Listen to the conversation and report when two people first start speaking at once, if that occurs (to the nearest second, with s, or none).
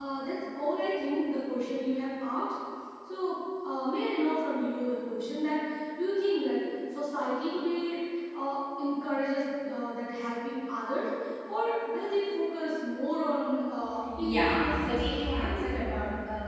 14 s